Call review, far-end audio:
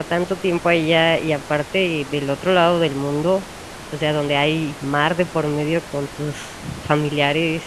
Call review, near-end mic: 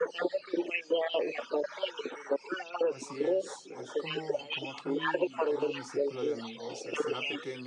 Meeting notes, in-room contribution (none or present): present